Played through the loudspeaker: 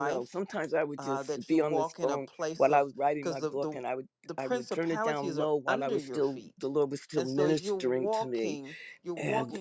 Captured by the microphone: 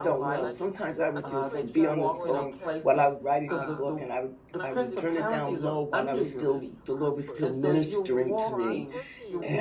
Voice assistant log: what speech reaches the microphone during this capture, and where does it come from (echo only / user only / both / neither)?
both